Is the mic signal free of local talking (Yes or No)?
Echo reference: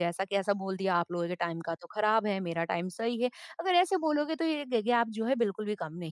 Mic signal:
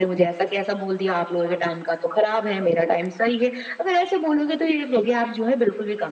Yes